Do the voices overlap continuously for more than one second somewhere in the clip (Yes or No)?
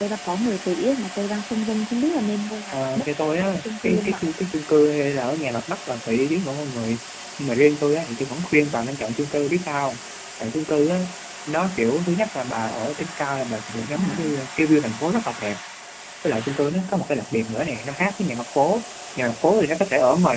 Yes